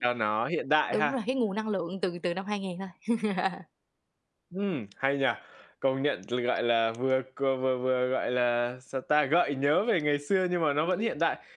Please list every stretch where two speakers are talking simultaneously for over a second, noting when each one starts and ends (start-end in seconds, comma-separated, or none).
none